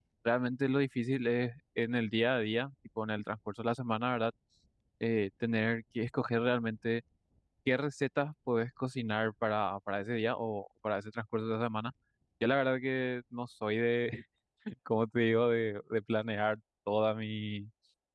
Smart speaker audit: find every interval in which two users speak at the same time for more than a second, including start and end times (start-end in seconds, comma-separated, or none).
none